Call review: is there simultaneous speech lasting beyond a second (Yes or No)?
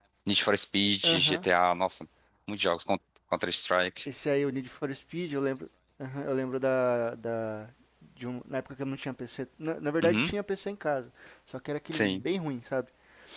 No